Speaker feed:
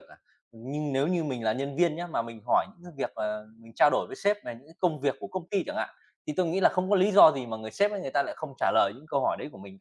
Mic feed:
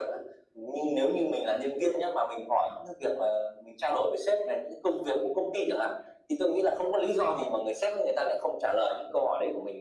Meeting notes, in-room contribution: none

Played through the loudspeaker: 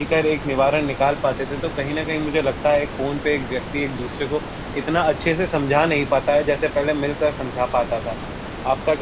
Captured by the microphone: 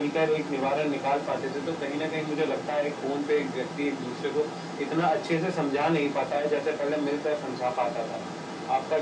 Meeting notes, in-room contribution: none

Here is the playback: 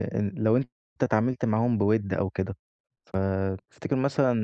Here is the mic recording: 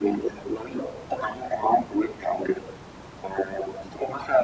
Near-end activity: none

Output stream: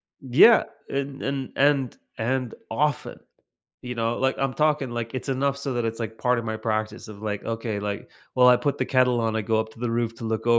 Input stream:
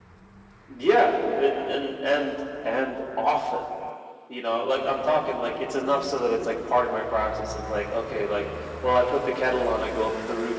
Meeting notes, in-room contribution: none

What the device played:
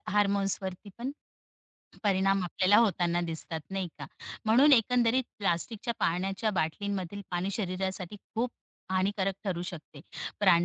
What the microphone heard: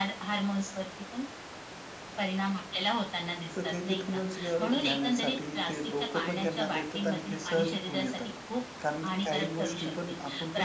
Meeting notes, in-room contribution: present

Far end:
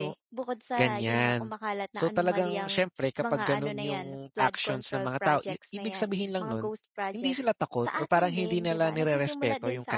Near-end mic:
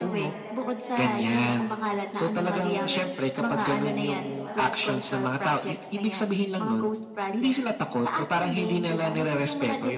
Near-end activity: present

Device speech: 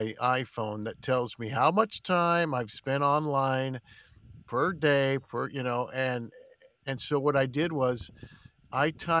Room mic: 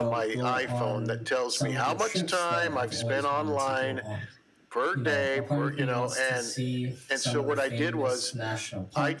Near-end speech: present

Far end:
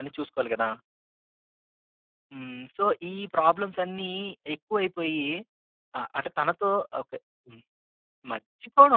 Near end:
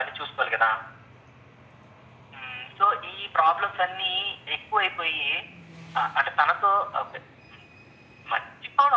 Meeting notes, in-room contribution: none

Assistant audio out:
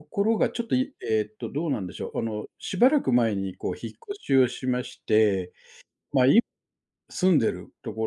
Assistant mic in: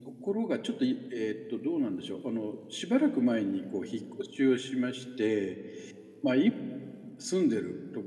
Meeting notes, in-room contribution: none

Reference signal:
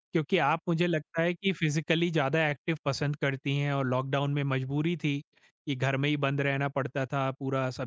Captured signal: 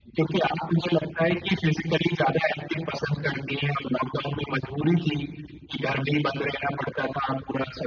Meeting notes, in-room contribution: none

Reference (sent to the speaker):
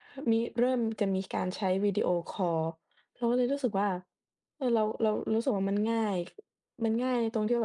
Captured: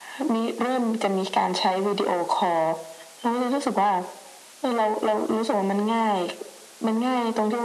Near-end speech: none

